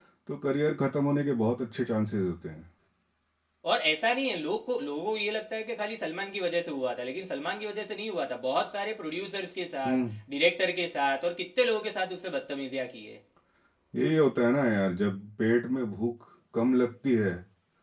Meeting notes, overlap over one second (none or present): none